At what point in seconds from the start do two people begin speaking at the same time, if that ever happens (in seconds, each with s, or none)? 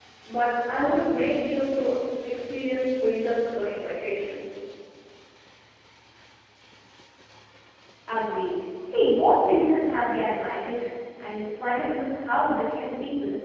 none